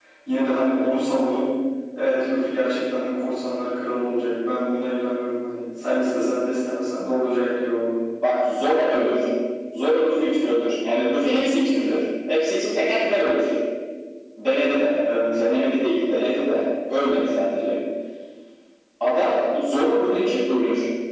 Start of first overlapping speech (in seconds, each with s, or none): none